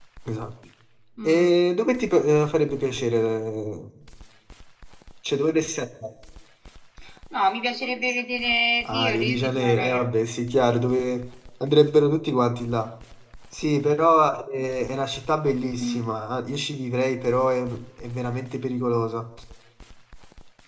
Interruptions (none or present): present